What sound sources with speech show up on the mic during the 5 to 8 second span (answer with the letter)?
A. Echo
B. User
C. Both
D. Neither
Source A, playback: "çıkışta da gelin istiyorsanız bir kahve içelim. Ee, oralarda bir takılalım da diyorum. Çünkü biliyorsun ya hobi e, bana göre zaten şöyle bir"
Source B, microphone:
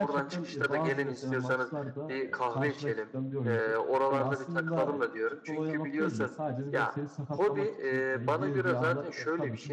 C